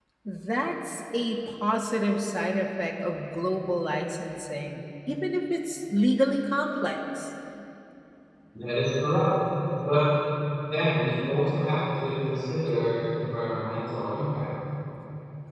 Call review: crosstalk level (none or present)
none